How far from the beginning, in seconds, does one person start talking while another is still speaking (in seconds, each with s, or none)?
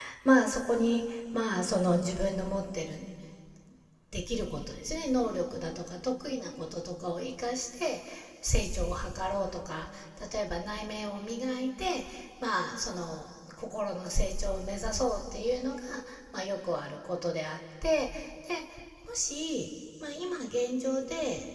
none